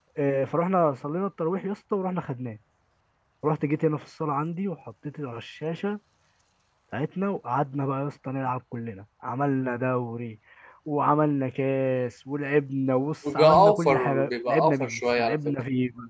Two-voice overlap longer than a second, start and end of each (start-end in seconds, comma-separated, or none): 13.3-15.6